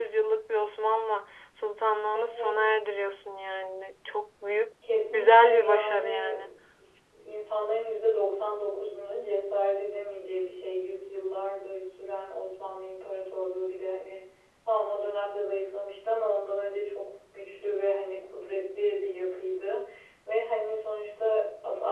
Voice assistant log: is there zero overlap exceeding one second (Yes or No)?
No